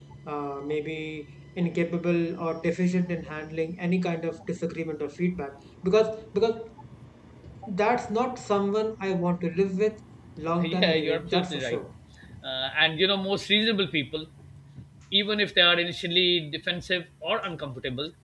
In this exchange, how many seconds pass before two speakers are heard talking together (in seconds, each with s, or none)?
10.6 s